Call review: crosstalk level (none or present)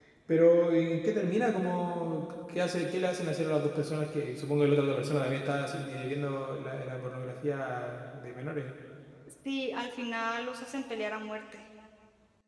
none